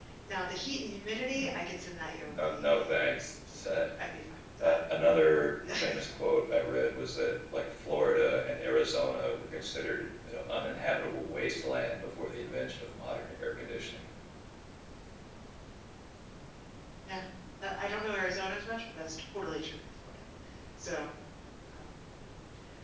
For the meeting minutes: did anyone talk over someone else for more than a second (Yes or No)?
Yes